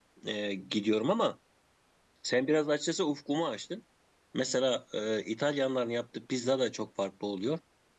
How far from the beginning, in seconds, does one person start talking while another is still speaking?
none

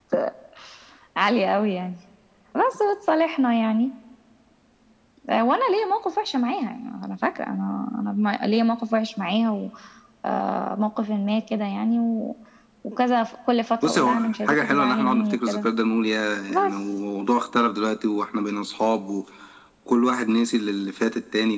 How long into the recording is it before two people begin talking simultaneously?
13.8 s

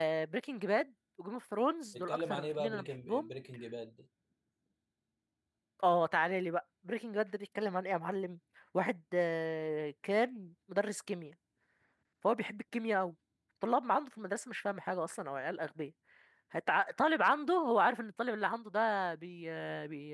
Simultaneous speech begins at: 1.9 s

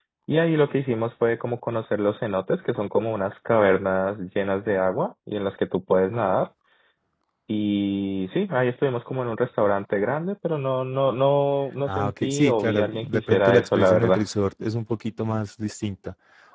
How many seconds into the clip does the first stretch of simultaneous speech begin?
11.9 s

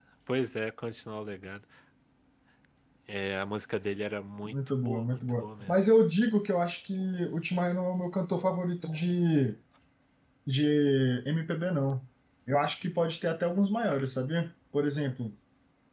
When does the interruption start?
4.4 s

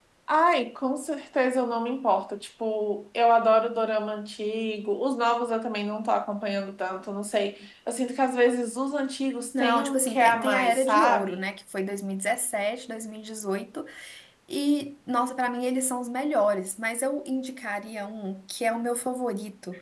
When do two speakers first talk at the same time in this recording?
9.5 s

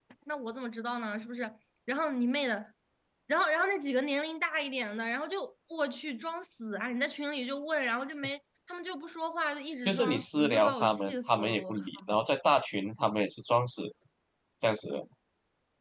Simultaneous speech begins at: 9.8 s

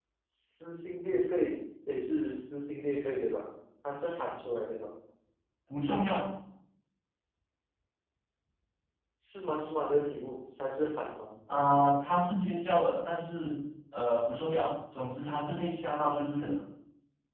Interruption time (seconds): none

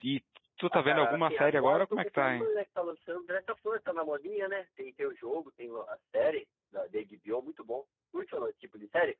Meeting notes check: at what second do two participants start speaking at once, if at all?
0.7 s

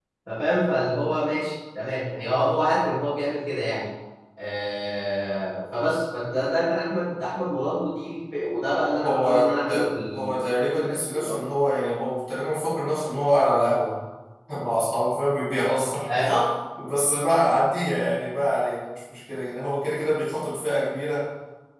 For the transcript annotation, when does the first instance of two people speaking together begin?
9.0 s

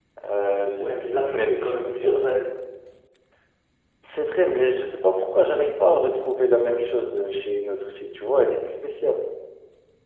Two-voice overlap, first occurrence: 0.8 s

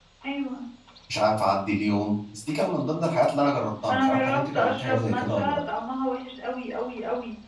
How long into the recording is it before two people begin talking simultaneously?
3.9 s

